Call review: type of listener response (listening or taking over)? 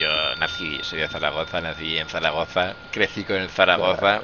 listening